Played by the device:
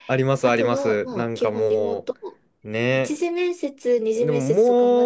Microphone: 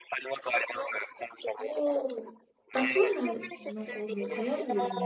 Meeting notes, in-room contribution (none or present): present